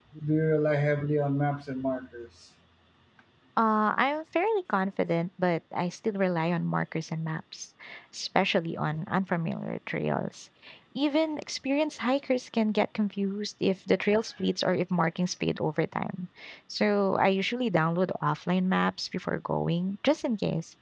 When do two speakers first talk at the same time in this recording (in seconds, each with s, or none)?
none